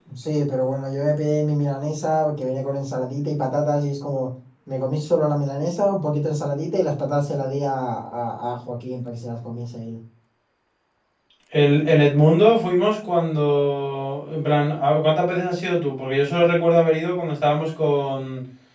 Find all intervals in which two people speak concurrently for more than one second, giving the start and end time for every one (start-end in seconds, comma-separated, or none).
none